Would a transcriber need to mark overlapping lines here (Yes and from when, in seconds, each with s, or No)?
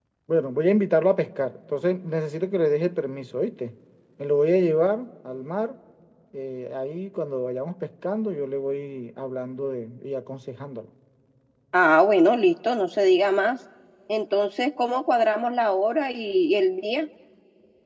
No